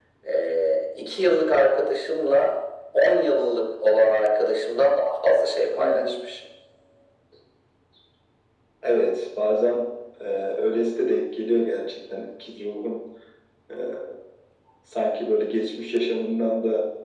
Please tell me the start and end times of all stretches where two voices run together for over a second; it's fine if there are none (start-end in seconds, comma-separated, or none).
none